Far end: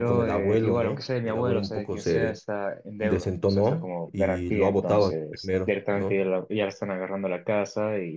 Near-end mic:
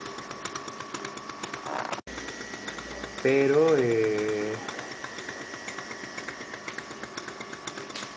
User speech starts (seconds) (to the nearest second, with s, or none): 3 s